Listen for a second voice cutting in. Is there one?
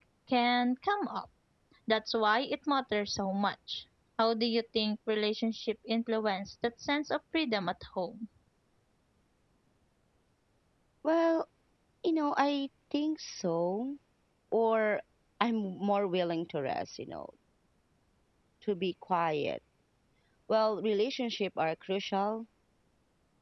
No

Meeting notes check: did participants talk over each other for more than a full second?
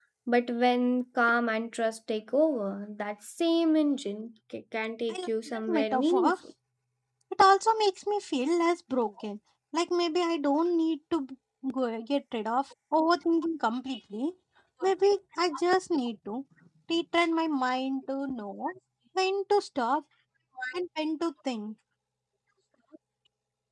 Yes, from 5.1 s

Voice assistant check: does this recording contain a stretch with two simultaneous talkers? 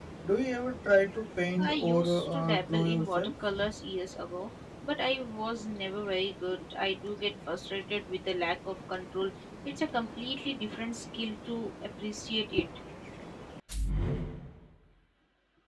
Yes, from 1.6 s

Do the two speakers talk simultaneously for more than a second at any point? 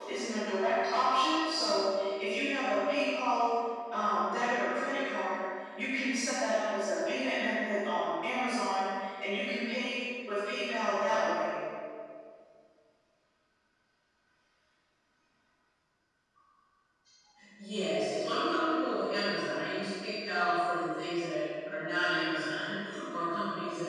No

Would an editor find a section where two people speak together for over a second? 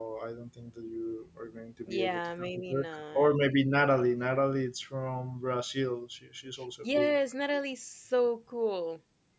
Yes, from 1.9 s

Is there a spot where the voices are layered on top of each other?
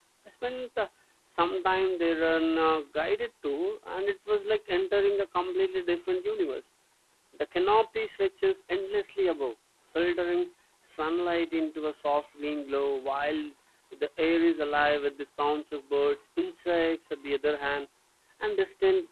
No

